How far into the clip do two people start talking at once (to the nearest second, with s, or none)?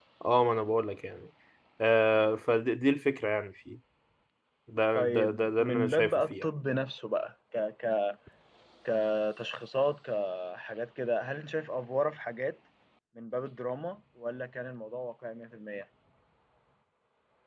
5 s